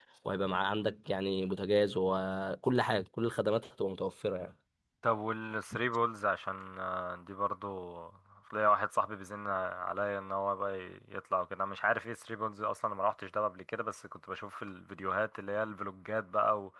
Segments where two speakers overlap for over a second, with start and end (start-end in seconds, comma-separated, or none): none